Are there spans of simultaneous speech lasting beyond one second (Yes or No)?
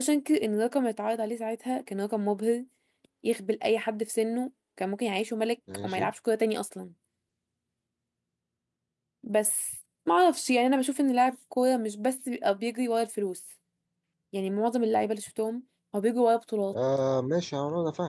No